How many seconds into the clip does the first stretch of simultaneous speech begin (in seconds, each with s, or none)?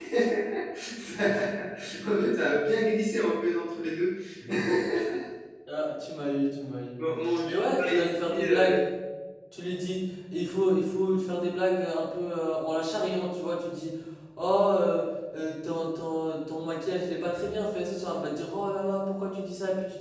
7.4 s